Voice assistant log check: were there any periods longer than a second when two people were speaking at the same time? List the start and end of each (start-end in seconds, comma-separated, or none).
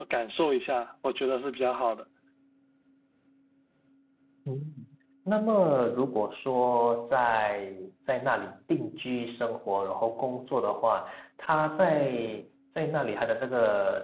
none